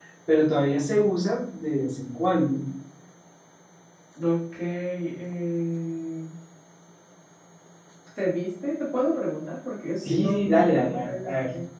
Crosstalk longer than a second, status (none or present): present